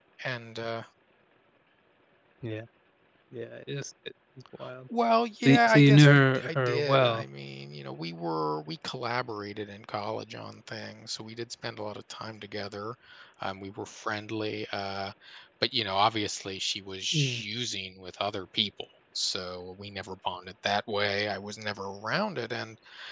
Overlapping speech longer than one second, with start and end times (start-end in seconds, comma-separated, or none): 5.5-7.2